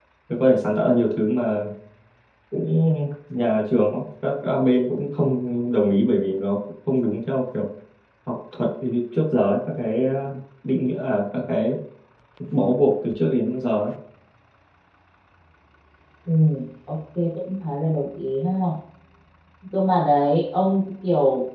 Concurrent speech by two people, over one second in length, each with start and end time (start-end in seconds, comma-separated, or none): none